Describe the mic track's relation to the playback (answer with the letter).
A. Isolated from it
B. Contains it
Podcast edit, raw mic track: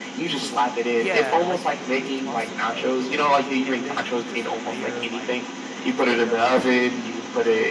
B